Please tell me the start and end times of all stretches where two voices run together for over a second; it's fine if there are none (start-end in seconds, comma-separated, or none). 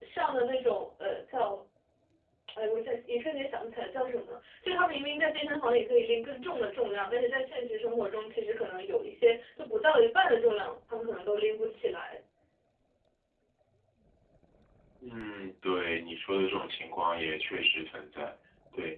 none